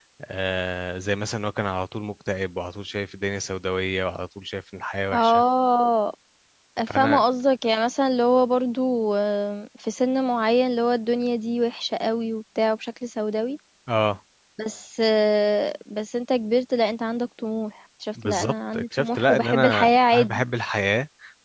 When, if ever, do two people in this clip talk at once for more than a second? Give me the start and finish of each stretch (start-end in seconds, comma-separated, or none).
18.2-20.4